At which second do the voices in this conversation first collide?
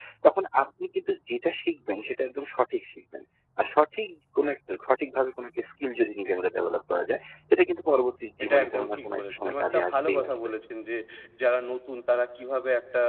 8.4 s

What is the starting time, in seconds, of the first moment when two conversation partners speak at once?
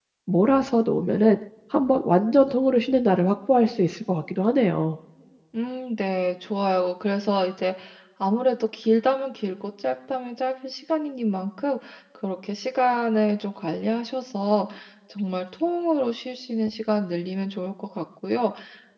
none

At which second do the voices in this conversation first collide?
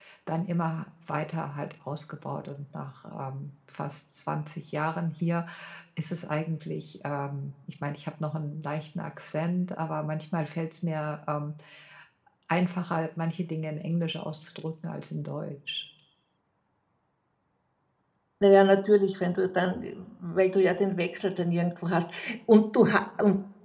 none

